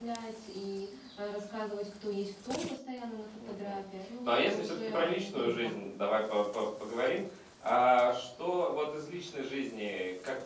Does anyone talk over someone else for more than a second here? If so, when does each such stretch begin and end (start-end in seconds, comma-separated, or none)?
4.2-5.8